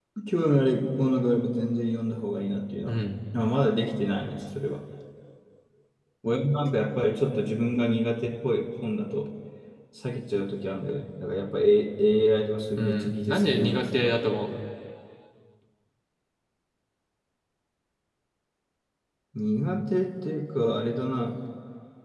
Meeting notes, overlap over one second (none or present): present